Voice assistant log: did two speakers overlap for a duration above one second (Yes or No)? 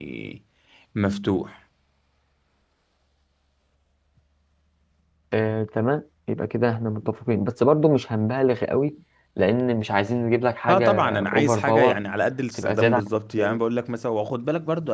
Yes